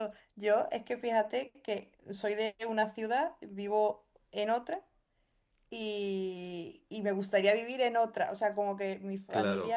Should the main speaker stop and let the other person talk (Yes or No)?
No